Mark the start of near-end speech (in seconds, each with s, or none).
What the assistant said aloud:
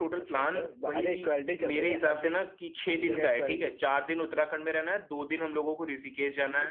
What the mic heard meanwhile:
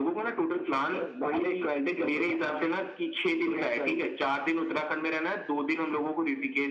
none